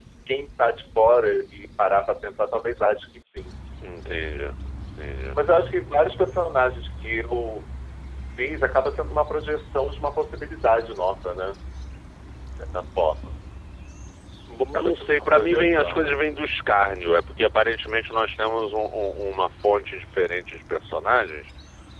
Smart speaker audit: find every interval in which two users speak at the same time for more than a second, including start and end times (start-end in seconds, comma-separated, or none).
14.7-16.2